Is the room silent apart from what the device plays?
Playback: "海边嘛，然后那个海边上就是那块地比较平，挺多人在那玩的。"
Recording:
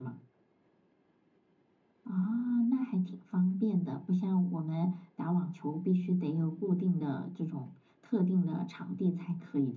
No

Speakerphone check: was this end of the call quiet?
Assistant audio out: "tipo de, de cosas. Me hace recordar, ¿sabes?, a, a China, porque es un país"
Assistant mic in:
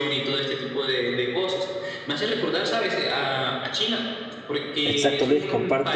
No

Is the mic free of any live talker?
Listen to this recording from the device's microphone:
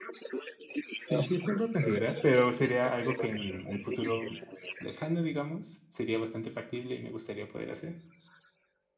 No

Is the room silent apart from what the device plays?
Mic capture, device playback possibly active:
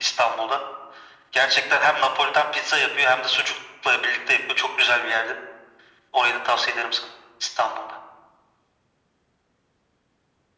Yes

